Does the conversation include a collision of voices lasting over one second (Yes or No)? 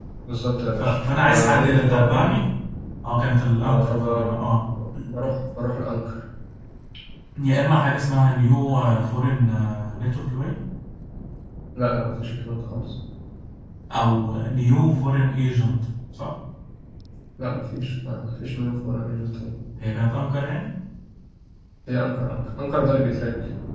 Yes